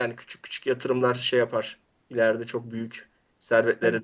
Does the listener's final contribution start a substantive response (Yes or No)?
Yes